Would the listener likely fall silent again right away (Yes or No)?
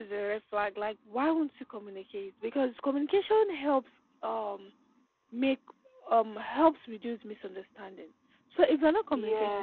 Yes